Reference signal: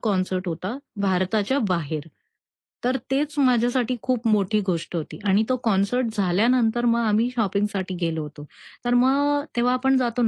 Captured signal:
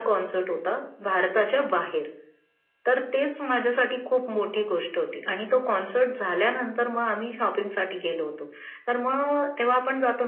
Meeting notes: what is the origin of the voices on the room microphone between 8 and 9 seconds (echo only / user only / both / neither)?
echo only